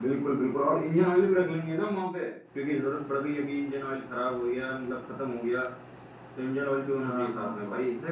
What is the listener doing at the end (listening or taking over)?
taking over